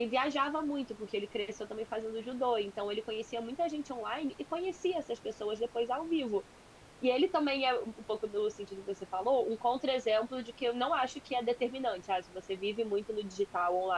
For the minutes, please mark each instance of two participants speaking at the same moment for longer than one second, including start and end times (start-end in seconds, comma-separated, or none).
none